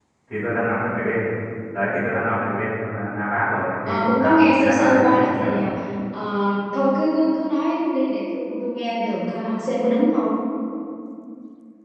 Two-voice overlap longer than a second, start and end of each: 3.9-5.5

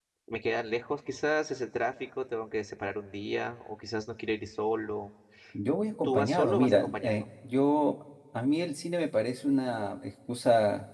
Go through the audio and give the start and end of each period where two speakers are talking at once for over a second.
6.0-7.2

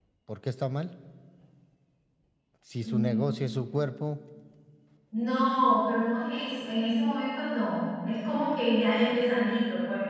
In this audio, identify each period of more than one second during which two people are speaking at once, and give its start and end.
none

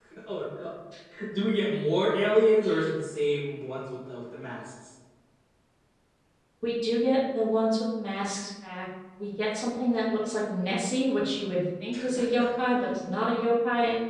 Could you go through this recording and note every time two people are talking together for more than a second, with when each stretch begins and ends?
none

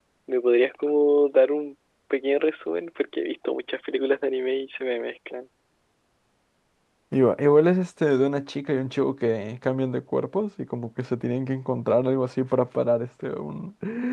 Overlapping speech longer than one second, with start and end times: none

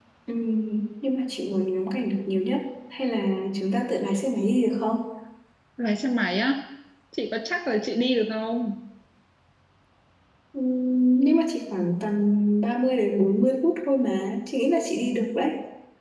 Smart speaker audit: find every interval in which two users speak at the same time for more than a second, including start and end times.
none

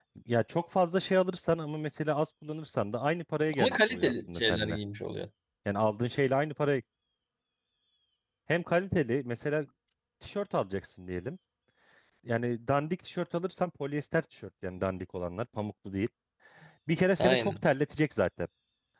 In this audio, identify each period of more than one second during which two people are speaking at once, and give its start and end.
3.6-4.8

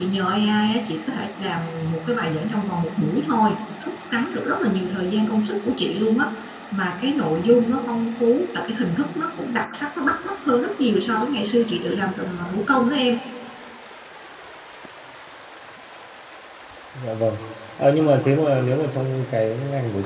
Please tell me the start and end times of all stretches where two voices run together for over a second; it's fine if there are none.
none

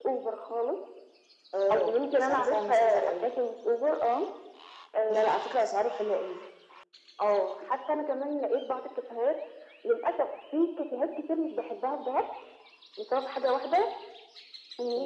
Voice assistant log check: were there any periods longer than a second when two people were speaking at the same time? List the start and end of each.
1.7-3.3

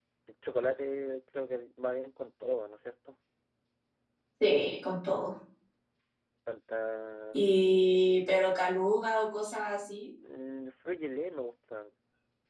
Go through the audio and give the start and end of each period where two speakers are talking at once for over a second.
none

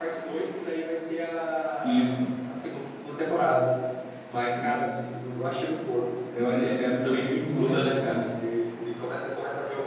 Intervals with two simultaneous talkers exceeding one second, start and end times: 6.4-8.1

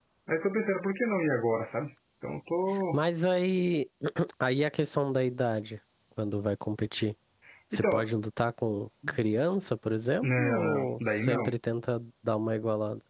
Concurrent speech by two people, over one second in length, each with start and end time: 10.2-11.5

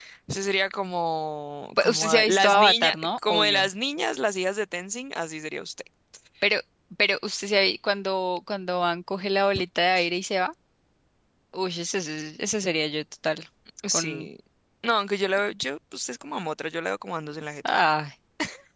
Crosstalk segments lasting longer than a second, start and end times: 1.8-3.7

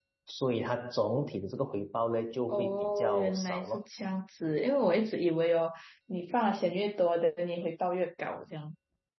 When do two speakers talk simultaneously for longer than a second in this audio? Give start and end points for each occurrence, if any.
2.5-3.8

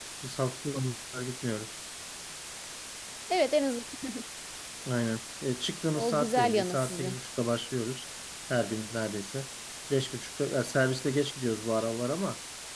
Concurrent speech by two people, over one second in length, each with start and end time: 5.9-7.2

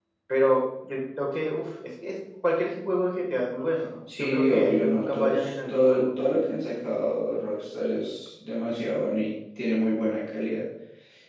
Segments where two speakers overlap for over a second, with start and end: 4.2-6.0

